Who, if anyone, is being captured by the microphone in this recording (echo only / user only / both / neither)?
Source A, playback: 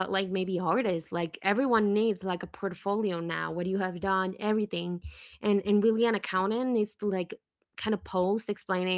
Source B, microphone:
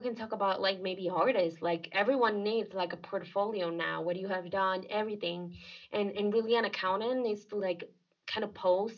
echo only